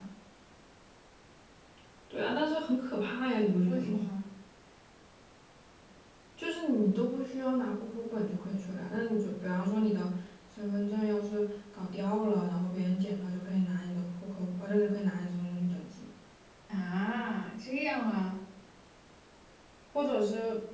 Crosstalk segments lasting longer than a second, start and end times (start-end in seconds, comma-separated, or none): none